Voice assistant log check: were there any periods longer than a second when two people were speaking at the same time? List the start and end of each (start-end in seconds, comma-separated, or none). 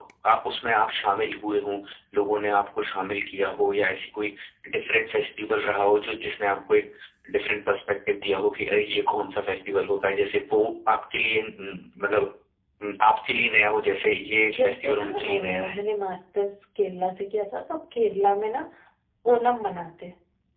14.5-15.8